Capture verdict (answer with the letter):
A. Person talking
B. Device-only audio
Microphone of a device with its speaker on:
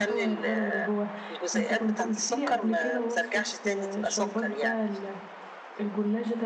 A